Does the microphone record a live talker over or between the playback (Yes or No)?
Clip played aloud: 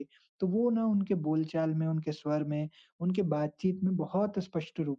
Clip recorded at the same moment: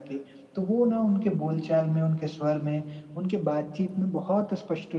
No